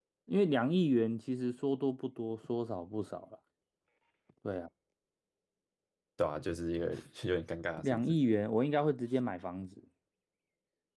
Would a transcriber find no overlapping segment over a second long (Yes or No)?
Yes